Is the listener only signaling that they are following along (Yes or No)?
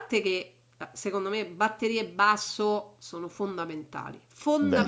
Yes